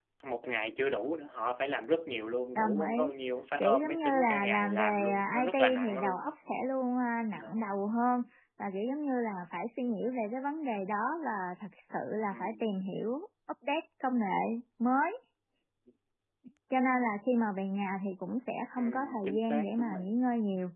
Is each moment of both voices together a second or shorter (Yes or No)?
No